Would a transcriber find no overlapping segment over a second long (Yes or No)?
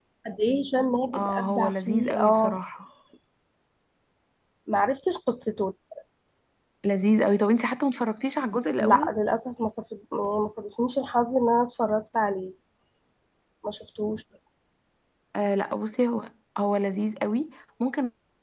No